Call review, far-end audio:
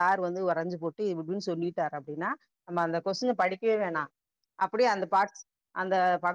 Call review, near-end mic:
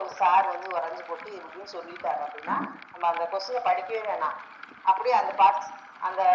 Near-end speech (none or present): none